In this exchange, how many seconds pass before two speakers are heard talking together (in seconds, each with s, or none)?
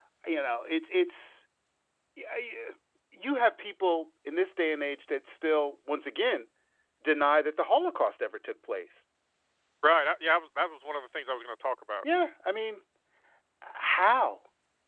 none